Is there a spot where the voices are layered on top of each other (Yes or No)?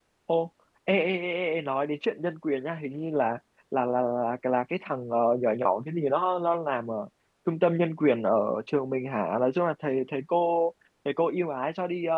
No